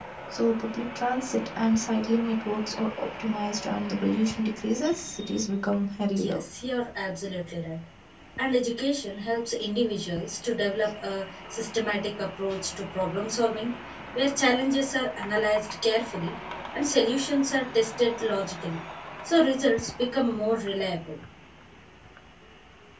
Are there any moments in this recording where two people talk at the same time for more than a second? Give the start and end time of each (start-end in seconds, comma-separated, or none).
none